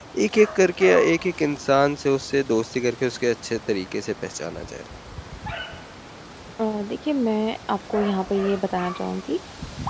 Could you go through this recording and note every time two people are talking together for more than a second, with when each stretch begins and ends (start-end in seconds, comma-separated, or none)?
none